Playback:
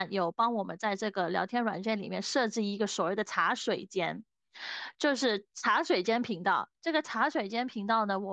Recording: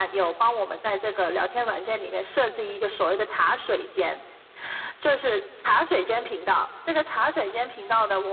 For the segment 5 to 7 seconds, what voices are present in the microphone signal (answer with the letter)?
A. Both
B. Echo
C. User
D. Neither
B